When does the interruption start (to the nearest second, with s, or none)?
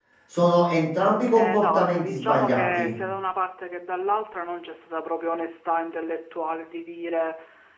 1 s